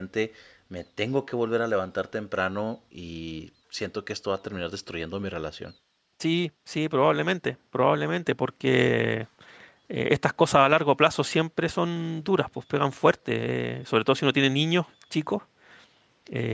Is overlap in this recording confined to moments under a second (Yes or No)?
Yes